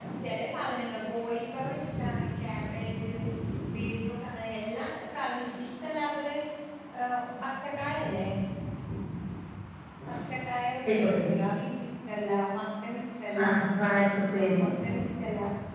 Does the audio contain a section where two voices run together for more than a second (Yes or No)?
No